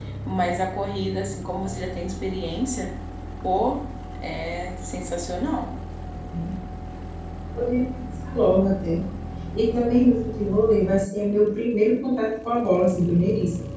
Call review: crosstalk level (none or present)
none